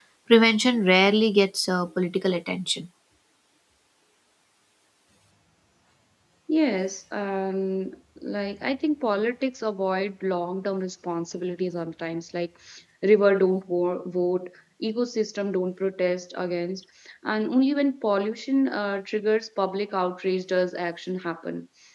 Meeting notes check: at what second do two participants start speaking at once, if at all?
none

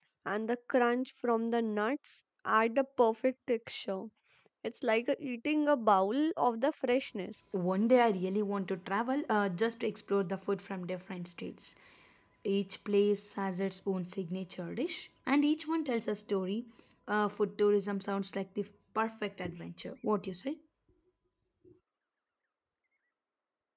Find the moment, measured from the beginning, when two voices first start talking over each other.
none

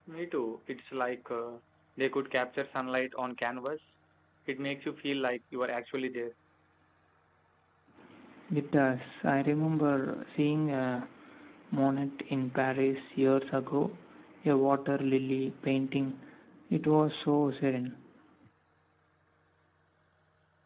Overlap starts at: none

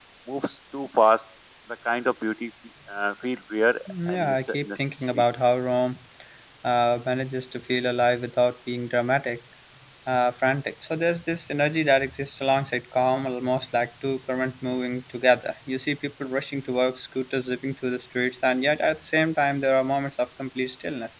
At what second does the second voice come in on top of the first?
3.9 s

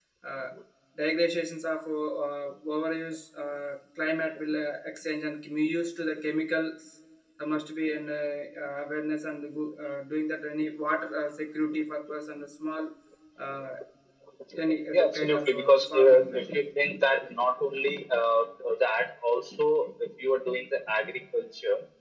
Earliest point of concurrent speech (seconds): 14.9 s

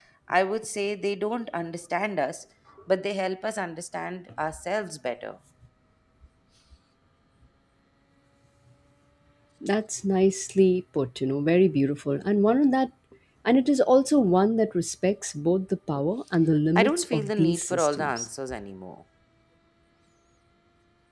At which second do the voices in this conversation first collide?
16.8 s

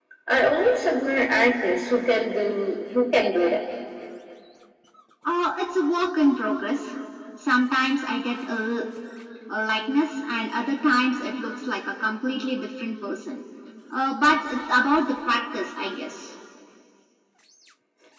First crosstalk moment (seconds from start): none

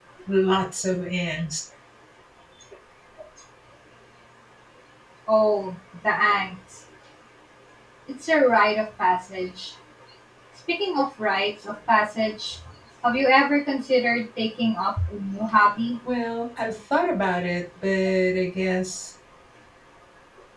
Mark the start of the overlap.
none

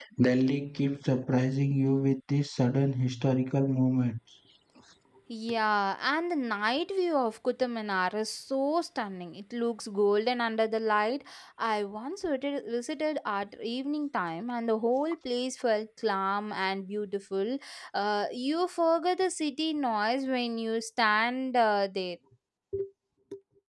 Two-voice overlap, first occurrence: none

